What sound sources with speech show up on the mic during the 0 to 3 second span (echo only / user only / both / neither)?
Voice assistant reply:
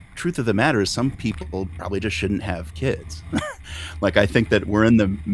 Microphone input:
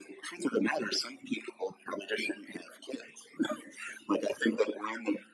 echo only